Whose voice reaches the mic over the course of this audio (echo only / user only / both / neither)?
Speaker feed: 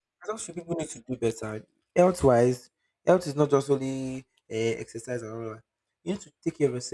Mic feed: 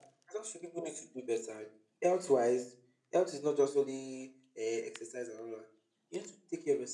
echo only